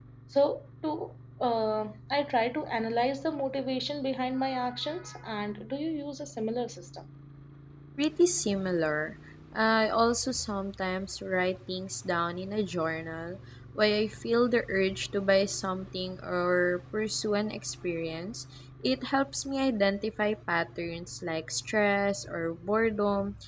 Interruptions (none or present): none